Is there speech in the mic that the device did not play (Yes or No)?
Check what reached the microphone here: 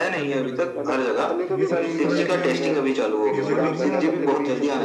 Yes